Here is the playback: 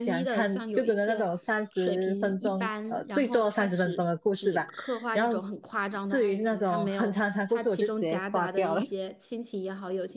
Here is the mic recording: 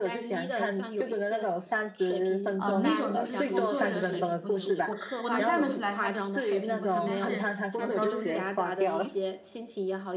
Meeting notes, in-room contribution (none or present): present